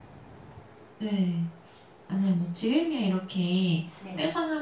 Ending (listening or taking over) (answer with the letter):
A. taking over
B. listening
B